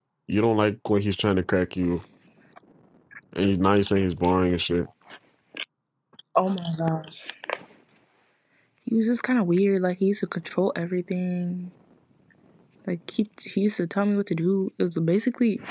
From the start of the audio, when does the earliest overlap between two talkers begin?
none

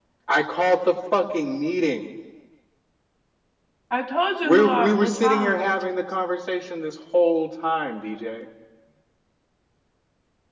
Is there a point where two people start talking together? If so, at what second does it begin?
4.4 s

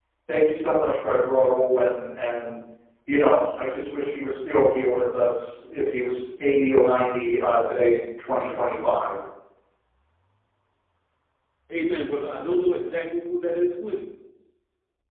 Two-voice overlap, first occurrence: none

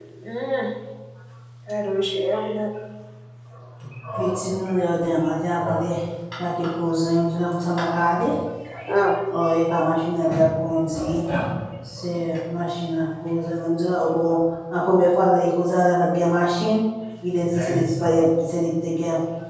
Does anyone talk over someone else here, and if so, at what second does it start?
none

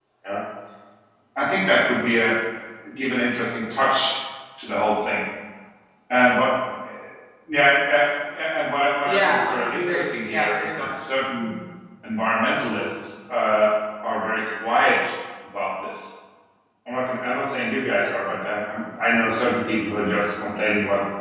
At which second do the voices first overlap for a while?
9.1 s

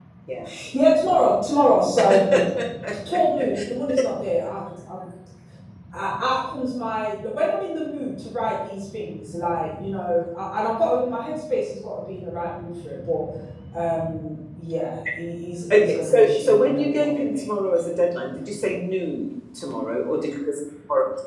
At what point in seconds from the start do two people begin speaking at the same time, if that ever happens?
15.7 s

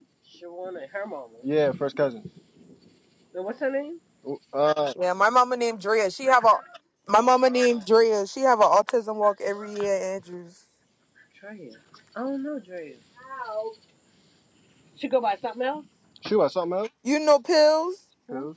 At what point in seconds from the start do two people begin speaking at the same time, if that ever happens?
none

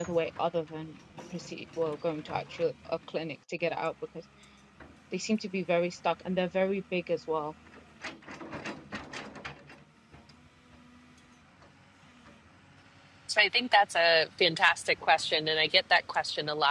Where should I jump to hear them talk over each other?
none

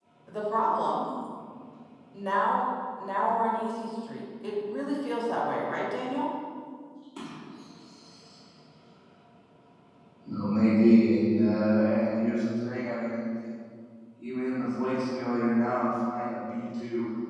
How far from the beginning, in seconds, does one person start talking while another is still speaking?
none

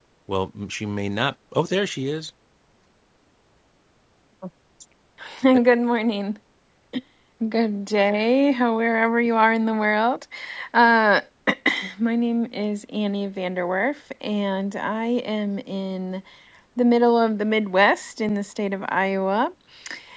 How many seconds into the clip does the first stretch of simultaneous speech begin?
none

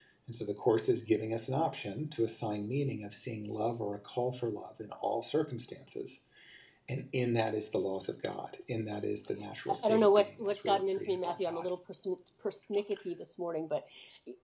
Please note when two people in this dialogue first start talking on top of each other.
9.7 s

